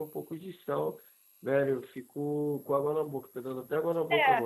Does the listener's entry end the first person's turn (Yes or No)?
Yes